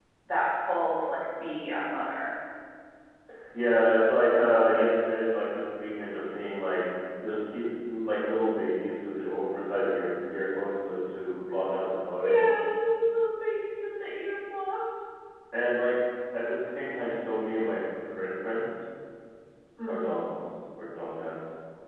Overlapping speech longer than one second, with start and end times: none

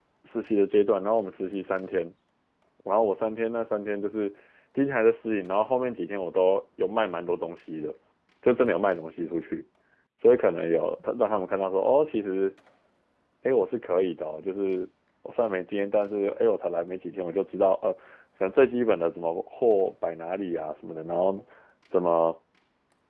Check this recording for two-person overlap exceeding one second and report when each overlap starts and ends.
none

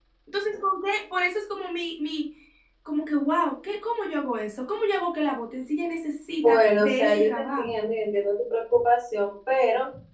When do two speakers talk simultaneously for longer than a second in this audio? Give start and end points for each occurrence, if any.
6.4-7.7

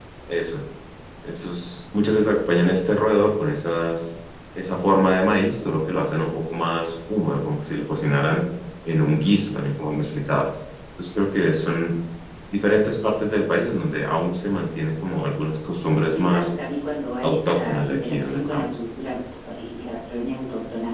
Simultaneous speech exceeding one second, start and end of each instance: 17.2-18.8

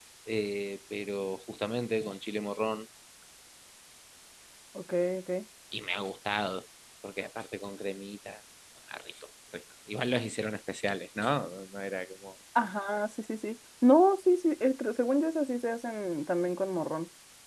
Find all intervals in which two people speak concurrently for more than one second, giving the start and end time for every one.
none

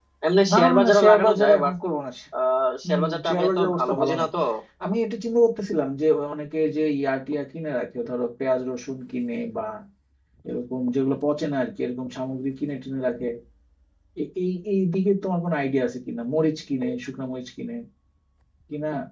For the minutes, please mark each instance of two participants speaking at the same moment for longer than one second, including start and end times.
0.5-1.7, 2.8-4.3

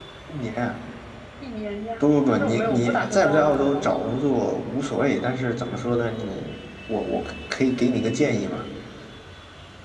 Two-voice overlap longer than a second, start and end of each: 2.0-4.1

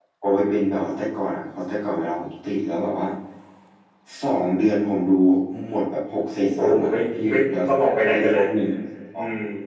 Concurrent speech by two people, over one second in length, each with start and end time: 6.4-8.4

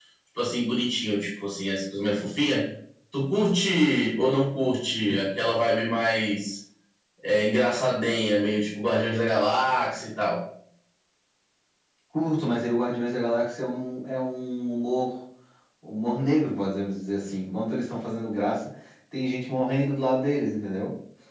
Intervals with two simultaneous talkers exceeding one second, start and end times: none

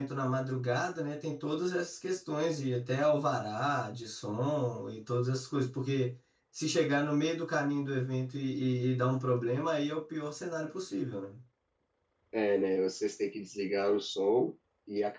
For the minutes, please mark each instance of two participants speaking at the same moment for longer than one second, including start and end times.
none

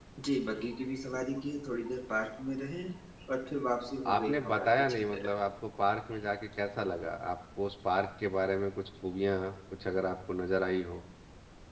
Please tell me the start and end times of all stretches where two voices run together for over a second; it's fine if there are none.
4.1-5.3

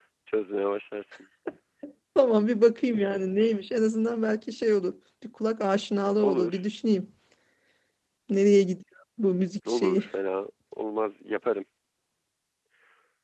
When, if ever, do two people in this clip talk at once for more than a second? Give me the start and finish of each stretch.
none

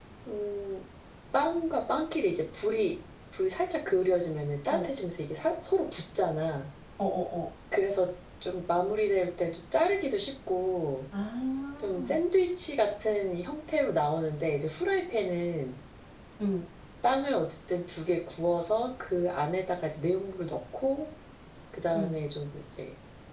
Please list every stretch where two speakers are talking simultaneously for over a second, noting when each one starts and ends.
none

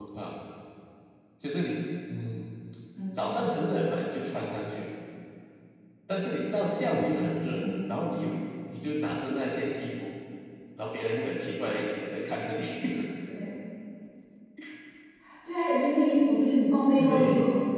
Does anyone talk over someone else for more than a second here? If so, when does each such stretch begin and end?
none

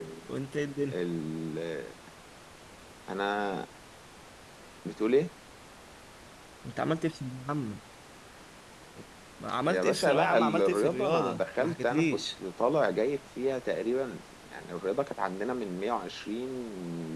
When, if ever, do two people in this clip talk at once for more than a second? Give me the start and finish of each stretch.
9.7-12.2

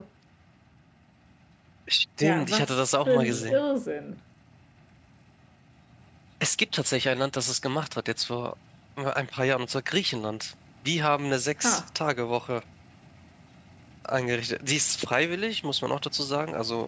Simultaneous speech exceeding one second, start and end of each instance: 2.2-3.6

